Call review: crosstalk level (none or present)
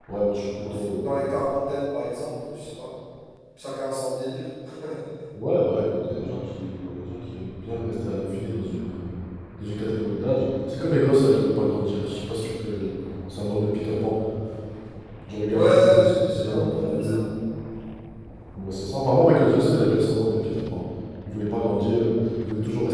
present